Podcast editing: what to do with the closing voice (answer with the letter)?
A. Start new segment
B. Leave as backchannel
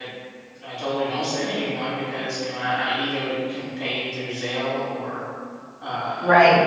A